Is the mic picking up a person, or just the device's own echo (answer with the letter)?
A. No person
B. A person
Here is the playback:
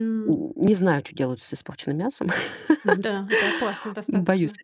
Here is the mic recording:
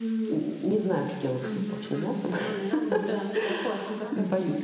B